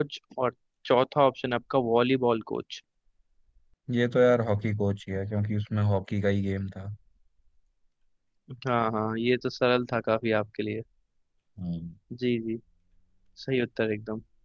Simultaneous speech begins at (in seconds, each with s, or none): none